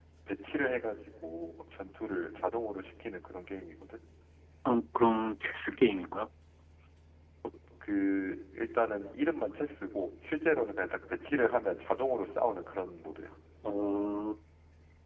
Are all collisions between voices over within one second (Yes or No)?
Yes